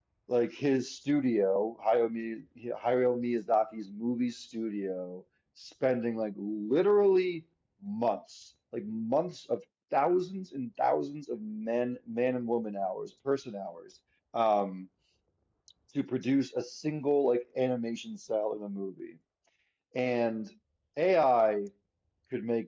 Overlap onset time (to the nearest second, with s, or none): none